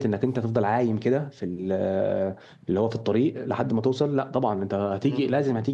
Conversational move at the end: listening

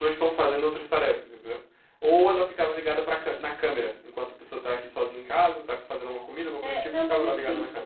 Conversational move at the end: taking over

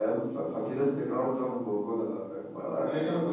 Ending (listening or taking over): listening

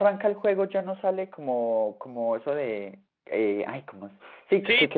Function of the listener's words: listening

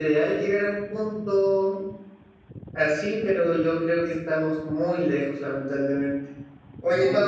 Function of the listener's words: listening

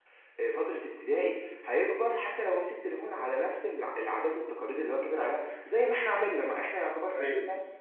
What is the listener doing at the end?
listening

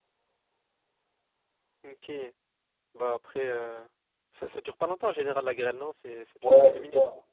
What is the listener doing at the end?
taking over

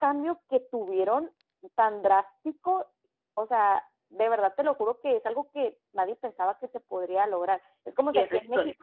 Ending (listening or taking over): listening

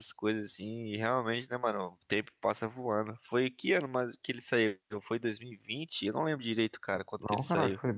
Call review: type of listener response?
taking over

